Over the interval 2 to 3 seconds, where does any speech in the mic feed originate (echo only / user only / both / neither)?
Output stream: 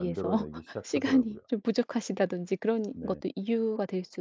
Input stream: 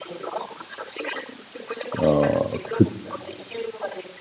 both